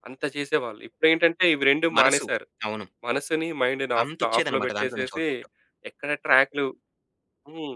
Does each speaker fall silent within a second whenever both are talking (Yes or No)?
No